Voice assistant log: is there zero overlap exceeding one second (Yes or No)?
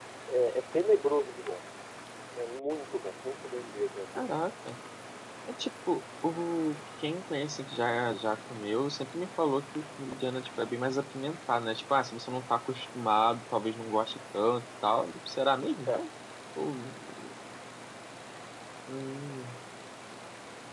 Yes